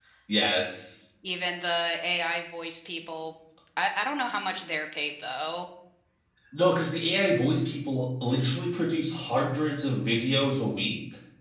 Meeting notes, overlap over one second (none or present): none